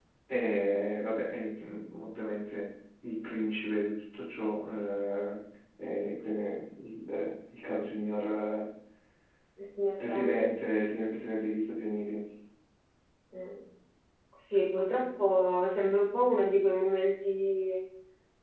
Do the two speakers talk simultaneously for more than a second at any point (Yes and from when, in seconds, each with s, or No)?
No